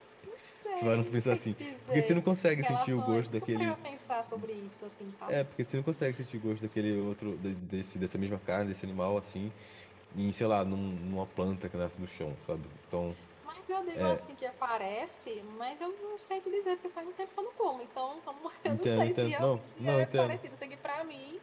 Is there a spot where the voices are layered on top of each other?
Yes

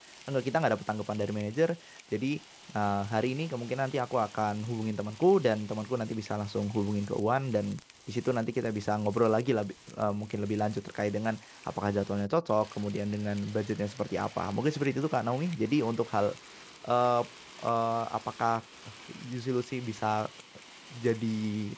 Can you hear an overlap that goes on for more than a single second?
No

